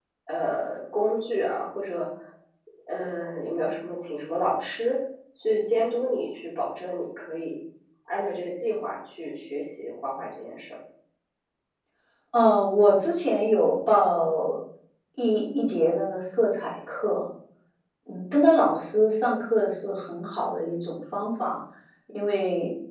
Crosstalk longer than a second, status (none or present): none